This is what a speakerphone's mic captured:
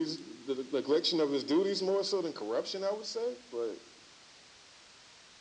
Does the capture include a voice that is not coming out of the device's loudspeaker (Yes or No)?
No